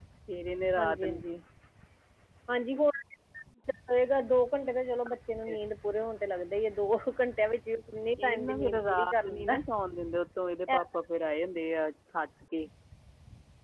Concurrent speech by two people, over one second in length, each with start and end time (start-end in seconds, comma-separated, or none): 8.2-9.6